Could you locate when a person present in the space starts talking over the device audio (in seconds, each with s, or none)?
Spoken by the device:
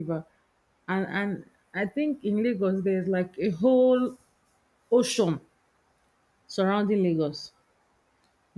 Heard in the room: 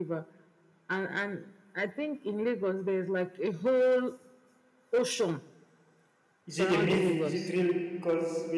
6.4 s